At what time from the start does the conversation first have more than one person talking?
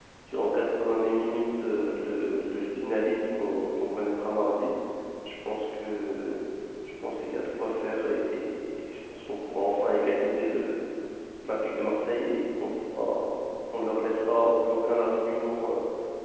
none

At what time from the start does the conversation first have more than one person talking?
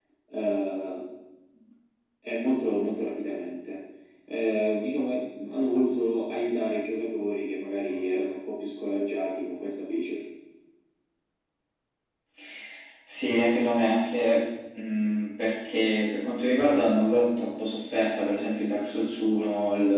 none

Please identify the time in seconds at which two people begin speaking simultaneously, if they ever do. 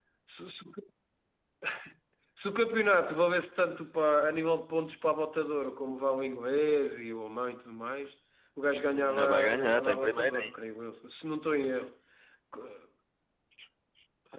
9 s

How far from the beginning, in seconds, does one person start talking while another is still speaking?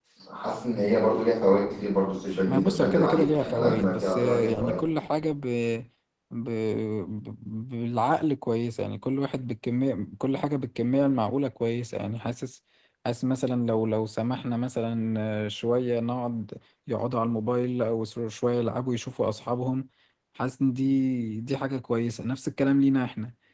2 s

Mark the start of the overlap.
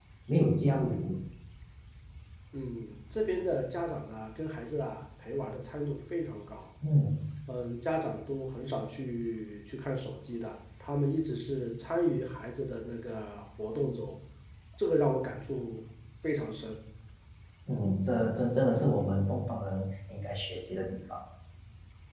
none

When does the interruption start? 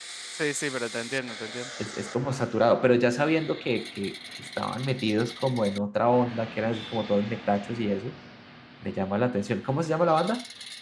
none

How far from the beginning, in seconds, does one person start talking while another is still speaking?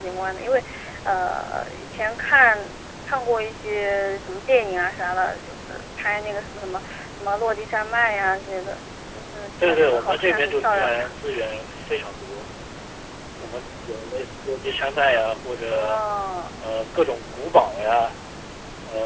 10 s

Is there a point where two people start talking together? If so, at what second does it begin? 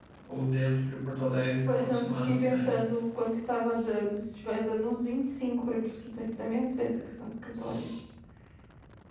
2 s

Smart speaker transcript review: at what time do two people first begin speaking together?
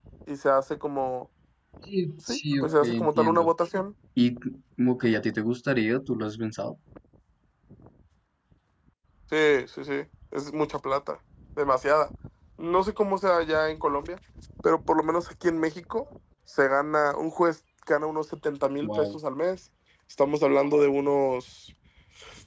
2 s

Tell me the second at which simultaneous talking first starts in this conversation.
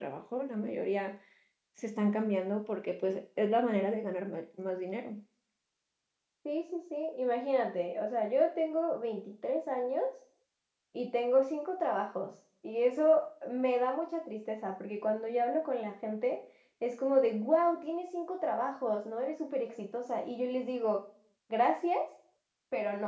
none

